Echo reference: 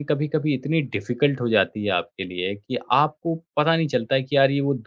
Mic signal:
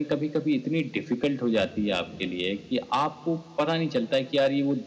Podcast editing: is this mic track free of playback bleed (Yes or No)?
No